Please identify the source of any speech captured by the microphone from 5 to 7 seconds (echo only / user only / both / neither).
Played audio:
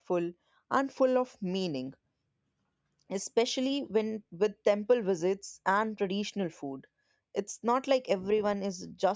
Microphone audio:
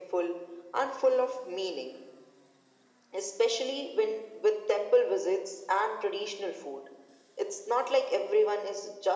echo only